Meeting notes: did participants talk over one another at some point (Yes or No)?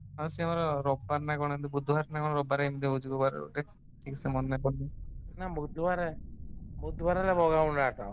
No